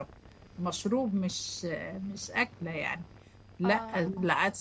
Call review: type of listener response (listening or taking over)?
listening